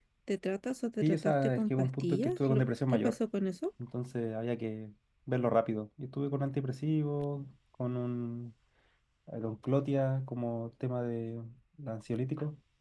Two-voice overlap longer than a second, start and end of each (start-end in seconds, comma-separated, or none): 1.0-3.2